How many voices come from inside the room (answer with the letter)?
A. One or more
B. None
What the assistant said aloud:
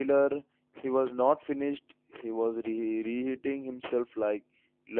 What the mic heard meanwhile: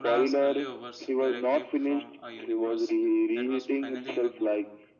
A